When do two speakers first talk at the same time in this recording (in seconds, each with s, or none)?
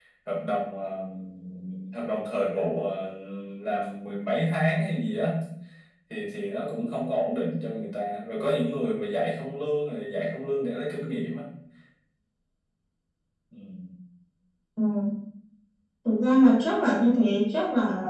none